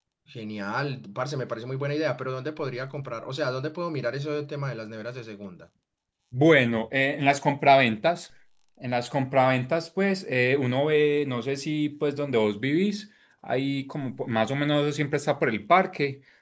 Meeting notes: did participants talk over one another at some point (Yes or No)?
No